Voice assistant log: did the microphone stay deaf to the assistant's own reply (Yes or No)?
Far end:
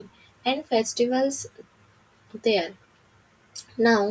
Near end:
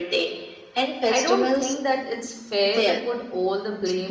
No